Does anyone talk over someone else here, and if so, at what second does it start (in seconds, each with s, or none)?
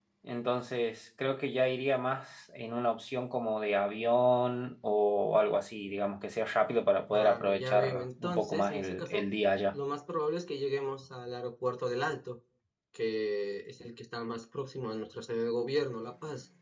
7.1 s